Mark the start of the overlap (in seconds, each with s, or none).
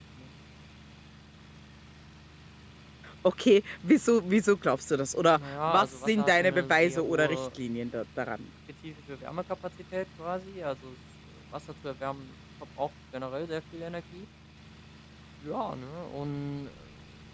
5.3 s